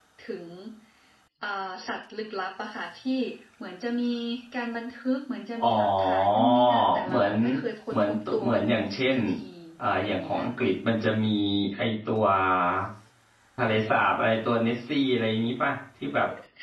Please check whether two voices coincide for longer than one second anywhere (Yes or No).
Yes